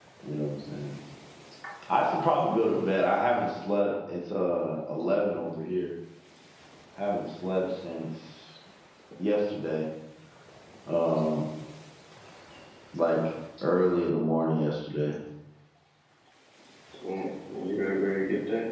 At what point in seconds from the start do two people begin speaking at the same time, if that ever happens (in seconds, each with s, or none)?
none